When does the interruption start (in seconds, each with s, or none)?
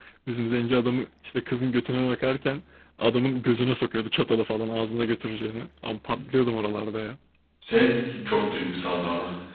none